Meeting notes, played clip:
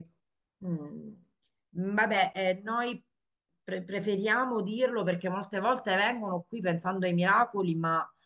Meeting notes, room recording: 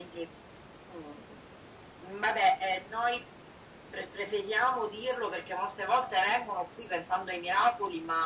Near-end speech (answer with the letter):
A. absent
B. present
A